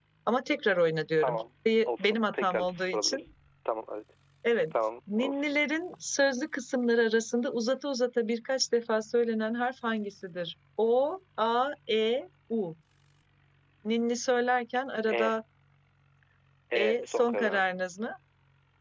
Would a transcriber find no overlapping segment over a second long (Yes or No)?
No